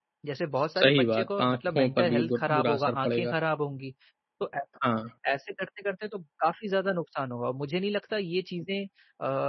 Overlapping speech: Yes, from 0.8 s

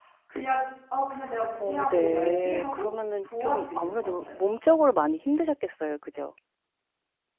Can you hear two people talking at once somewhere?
Yes, from 1.6 s

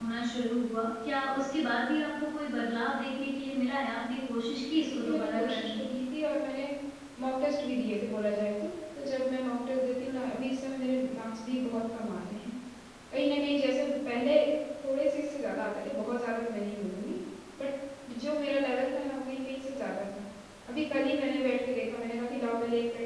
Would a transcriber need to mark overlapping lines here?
Yes, from 4.5 s

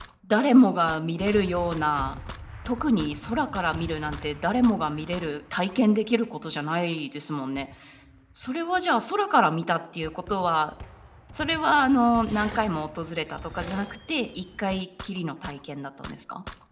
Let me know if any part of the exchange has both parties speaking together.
No

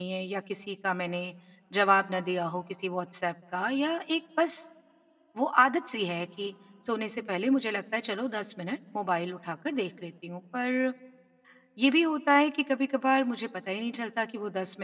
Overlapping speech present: No

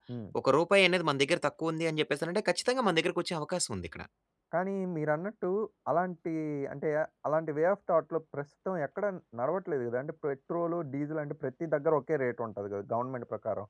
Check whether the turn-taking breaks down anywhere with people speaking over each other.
No

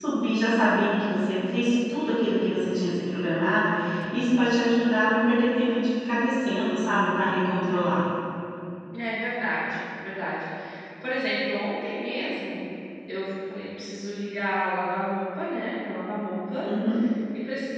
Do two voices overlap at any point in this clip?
No

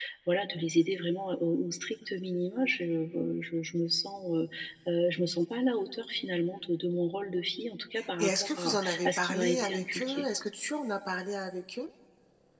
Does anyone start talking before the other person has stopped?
Yes, from 8.0 s

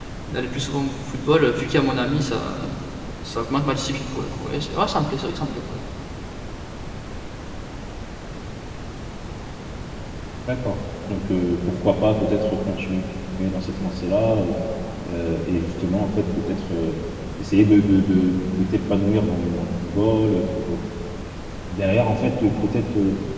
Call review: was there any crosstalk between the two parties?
No

